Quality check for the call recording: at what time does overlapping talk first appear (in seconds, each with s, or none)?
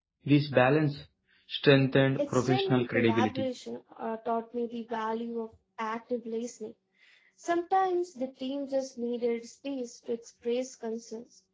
2.2 s